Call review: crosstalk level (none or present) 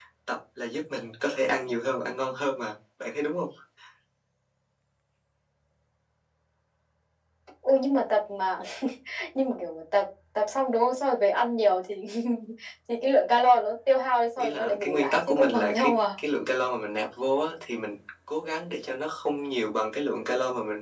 present